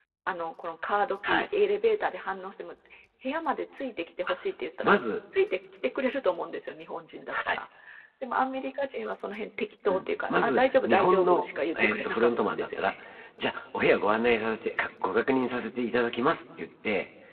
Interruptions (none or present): present